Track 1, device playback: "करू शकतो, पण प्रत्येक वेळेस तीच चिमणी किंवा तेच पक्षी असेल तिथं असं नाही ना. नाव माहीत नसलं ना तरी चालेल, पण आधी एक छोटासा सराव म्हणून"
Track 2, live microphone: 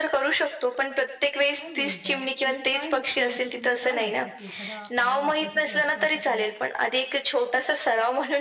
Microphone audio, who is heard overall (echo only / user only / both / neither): both